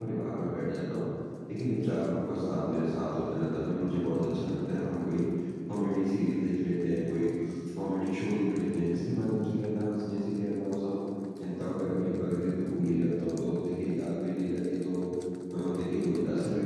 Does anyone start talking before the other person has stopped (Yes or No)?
No